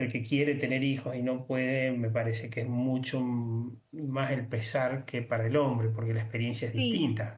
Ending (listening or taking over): taking over